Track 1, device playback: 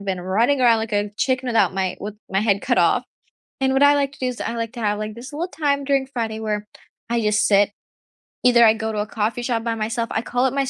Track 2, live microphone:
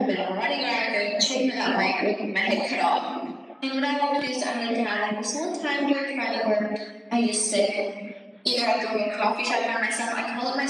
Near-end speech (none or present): none